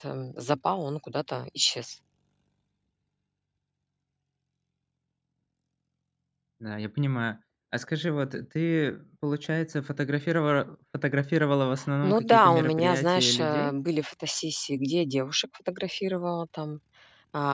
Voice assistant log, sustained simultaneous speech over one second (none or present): present